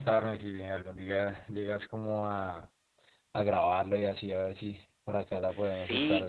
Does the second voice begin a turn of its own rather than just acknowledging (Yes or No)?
Yes